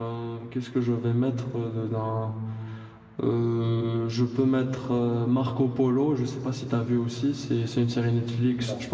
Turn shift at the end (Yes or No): No